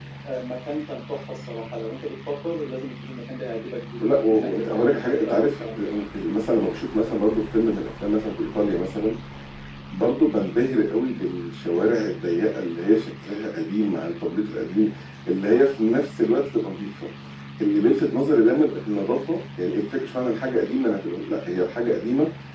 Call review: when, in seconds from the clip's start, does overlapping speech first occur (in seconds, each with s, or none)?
4.0 s